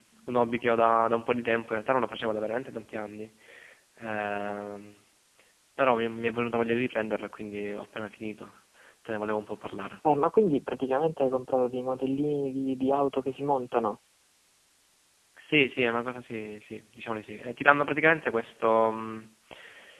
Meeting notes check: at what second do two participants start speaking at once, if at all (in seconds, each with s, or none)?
none